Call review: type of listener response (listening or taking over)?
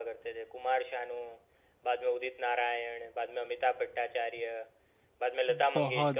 taking over